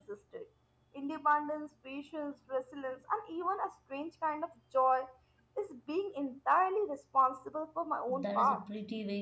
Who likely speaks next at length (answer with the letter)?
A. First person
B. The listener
B